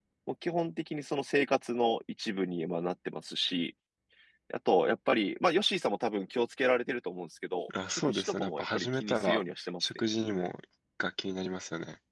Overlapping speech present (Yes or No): Yes